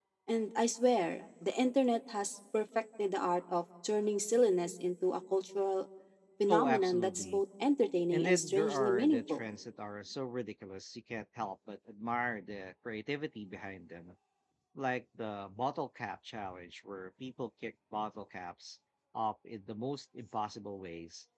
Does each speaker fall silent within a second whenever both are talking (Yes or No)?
No